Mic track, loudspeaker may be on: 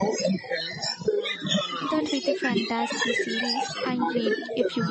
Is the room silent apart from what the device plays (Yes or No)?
No